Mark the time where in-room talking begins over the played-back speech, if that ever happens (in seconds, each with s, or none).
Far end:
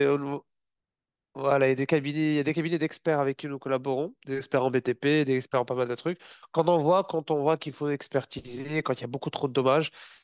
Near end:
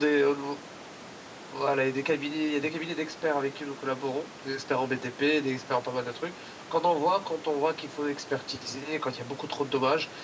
none